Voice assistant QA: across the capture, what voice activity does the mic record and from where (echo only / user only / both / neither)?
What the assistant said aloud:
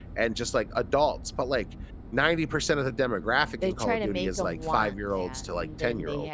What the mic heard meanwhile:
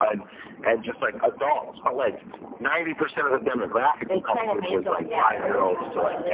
both